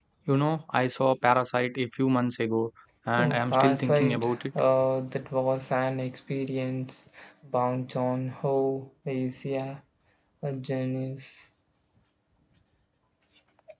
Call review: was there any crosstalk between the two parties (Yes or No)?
Yes